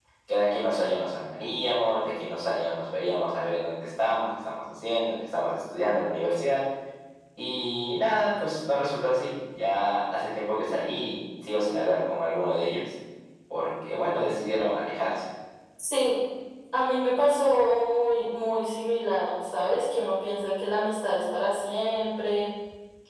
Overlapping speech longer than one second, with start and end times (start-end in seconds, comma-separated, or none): none